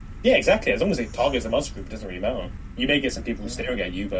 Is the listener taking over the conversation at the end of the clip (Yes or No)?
No